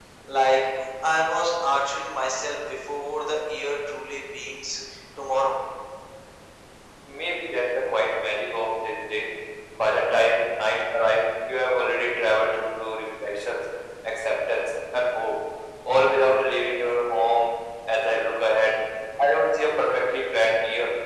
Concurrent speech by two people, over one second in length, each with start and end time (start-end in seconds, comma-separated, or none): none